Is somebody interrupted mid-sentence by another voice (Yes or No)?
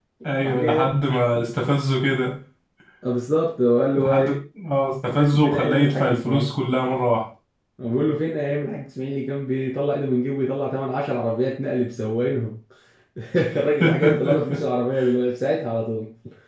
Yes